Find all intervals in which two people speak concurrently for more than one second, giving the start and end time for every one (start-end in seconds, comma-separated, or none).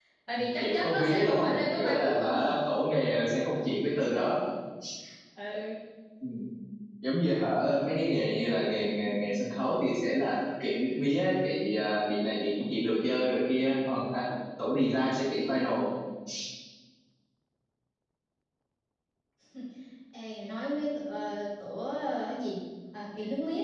0.6-2.4